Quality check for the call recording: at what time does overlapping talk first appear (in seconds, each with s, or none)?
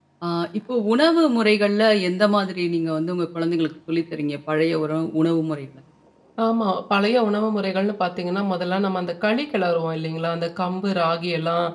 none